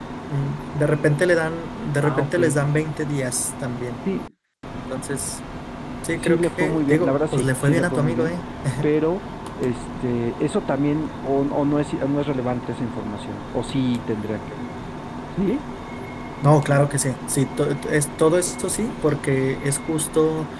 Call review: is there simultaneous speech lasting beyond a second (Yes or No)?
Yes